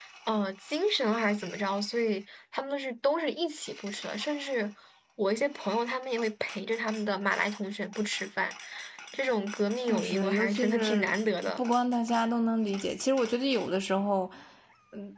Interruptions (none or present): present